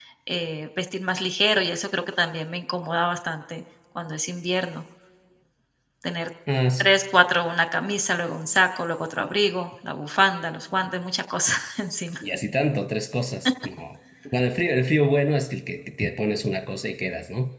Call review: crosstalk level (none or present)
none